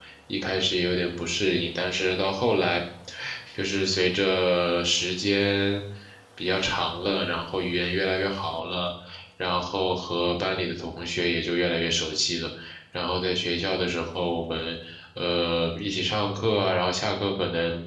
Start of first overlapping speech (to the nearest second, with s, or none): none